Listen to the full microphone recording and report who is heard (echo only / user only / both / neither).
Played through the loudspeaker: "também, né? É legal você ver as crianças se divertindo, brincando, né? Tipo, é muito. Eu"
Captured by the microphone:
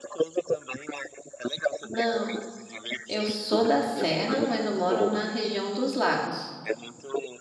both